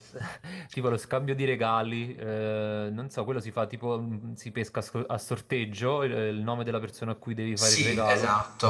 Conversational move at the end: taking over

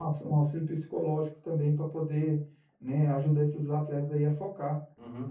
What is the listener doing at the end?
taking over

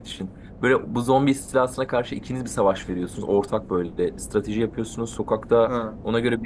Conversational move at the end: listening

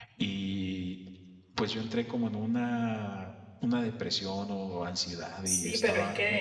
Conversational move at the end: taking over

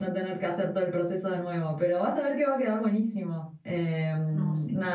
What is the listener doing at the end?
listening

